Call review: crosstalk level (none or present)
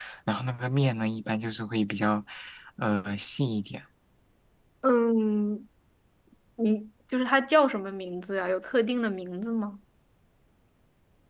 none